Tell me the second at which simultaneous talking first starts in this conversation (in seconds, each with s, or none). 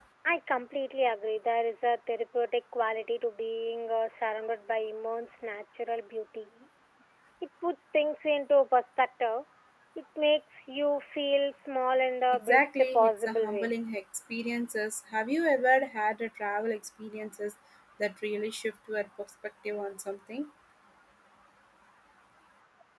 12.3 s